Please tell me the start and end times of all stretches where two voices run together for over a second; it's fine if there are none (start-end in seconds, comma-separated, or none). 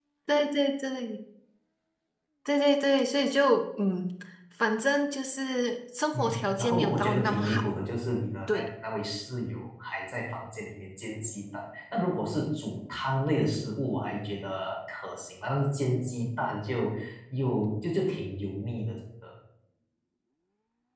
6.1-7.7